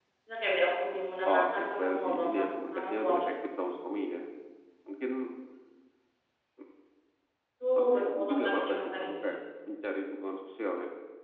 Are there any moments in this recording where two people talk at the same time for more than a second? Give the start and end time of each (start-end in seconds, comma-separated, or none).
1.3-3.3, 7.8-9.4